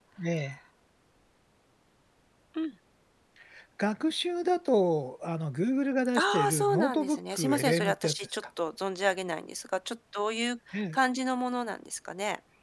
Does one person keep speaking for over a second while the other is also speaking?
Yes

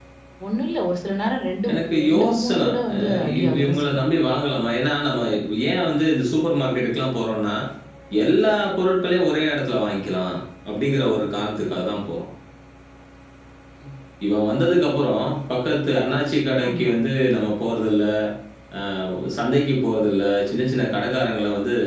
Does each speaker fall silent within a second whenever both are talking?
No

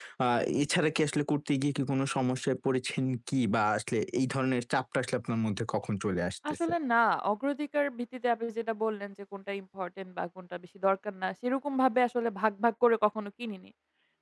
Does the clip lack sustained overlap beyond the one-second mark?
Yes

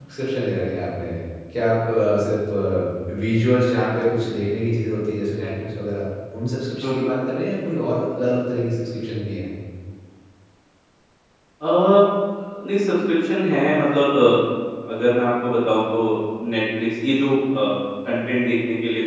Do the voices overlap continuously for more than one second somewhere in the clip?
No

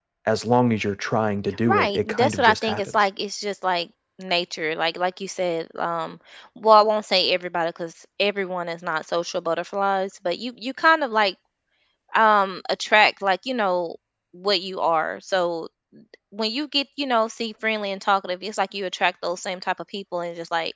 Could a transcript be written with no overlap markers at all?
No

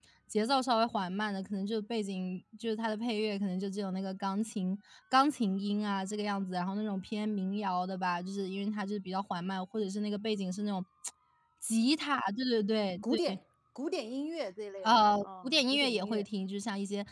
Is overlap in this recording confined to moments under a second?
No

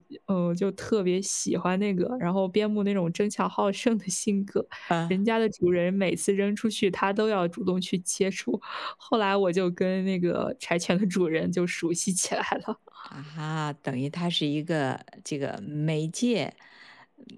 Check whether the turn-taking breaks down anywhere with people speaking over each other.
No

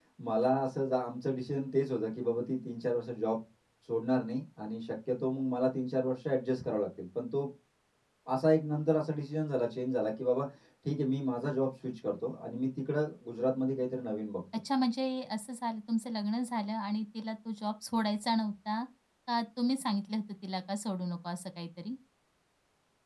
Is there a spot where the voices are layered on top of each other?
No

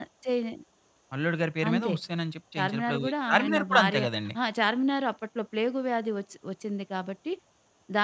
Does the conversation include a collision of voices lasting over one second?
Yes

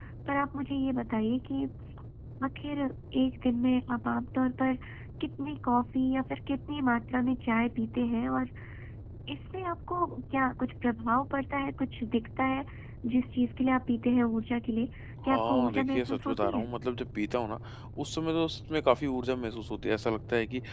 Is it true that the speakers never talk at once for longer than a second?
No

